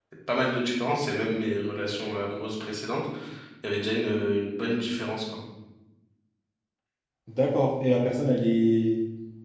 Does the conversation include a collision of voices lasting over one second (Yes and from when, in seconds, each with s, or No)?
No